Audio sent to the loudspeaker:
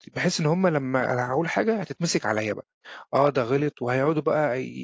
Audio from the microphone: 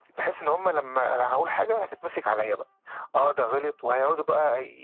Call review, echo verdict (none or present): present